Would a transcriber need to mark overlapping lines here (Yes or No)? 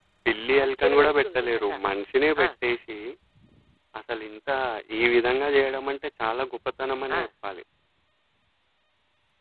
Yes